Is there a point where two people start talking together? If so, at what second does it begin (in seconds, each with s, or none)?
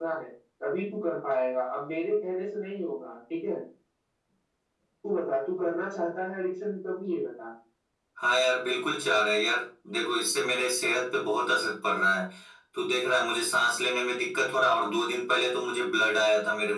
none